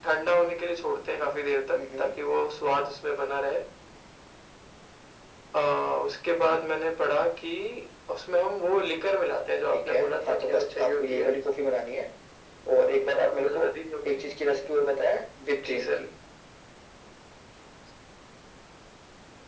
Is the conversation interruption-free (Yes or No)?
No